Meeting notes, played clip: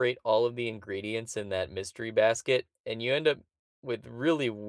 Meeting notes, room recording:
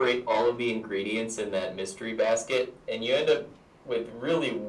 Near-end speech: none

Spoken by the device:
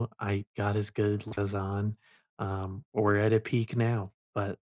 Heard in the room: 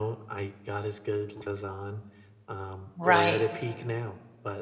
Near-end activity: present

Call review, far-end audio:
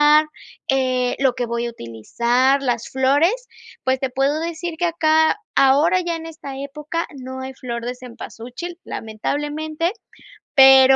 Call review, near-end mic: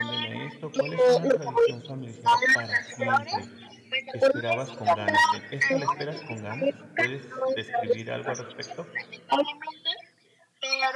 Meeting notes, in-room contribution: present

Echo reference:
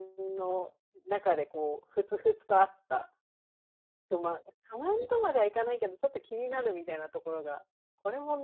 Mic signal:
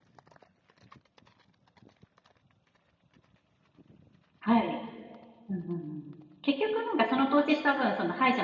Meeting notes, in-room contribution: present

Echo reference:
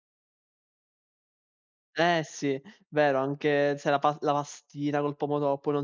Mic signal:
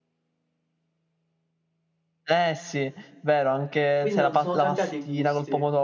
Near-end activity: present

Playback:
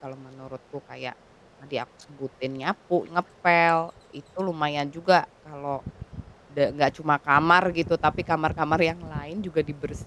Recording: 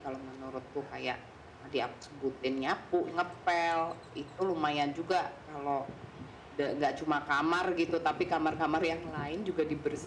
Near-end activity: none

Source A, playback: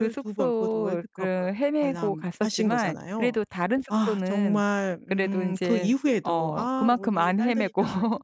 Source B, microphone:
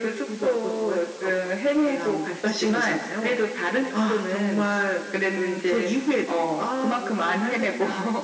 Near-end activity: none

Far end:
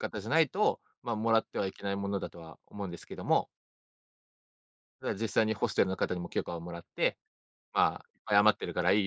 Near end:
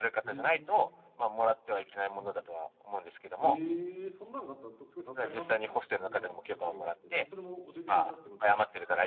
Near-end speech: present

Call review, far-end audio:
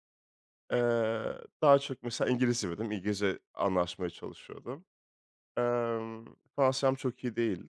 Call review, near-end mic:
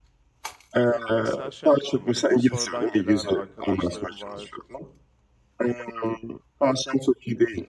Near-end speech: present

